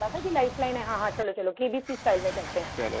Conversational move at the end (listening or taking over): taking over